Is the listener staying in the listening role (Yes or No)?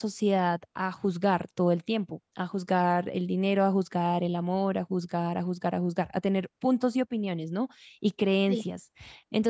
Yes